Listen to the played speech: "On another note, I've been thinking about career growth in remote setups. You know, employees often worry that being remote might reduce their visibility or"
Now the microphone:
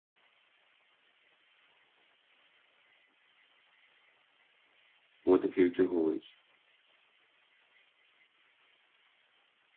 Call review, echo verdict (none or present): none